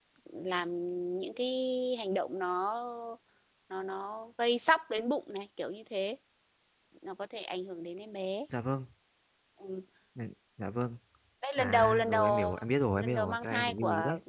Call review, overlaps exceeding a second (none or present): present